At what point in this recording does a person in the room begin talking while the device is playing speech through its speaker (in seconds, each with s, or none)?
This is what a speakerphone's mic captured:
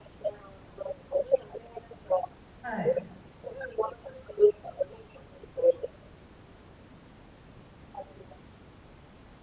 2.6 s